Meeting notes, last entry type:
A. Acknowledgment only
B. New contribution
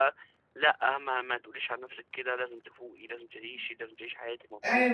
B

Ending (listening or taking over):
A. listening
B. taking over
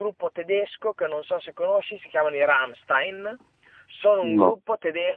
A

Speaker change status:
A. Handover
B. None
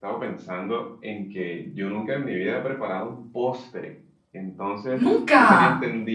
B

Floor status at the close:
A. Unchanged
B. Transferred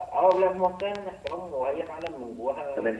B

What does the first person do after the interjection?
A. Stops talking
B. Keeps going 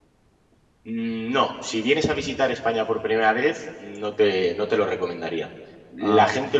B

